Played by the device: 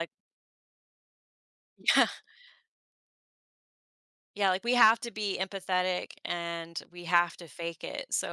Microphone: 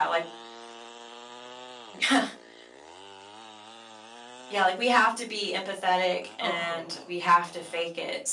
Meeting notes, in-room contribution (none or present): present